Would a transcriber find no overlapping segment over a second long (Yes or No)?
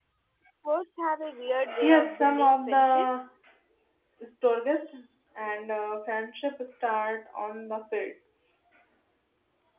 No